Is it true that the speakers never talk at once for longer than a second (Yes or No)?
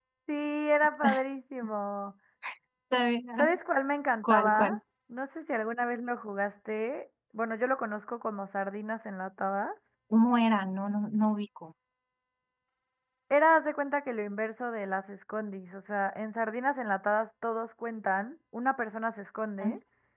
Yes